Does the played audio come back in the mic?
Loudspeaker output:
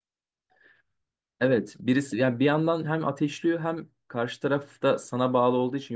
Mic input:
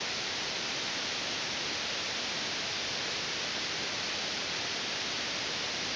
No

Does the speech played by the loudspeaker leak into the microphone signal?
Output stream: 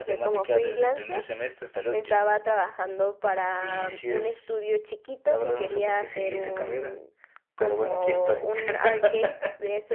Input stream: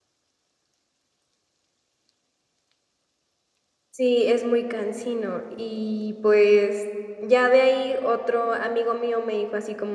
No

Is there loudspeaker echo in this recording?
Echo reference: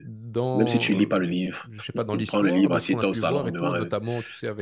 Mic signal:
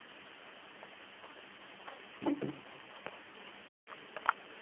No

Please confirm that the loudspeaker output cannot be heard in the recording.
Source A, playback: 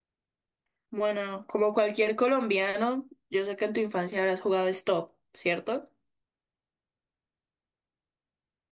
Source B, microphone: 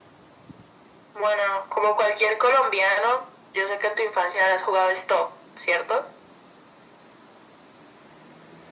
No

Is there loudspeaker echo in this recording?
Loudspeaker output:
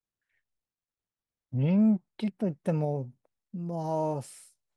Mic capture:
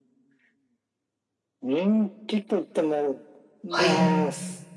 Yes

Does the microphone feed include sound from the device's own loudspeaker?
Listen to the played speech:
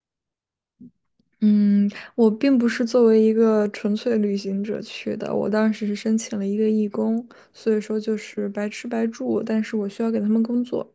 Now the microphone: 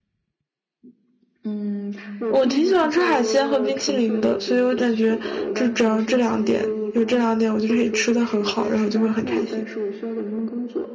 Yes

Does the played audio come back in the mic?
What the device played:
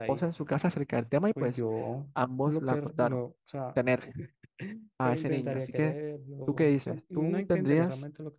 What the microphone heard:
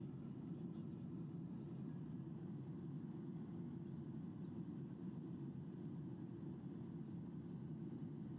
No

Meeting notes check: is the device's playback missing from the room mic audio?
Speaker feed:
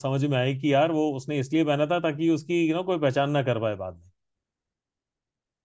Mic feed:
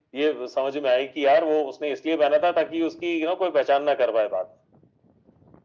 No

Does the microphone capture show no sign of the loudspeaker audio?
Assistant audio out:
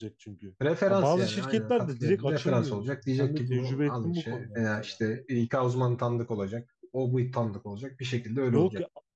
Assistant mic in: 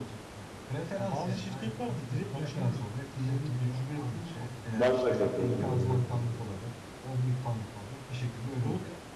No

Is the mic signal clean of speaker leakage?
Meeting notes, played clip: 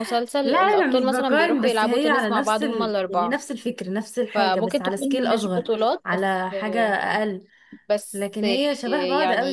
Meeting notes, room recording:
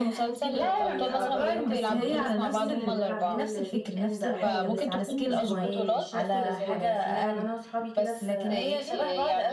No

